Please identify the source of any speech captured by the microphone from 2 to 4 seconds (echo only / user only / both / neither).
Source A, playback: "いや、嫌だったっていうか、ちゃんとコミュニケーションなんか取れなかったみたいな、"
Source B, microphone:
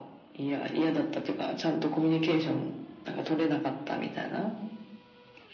echo only